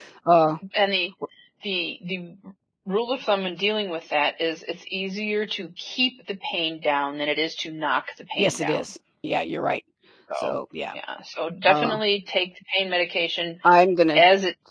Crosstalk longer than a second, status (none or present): none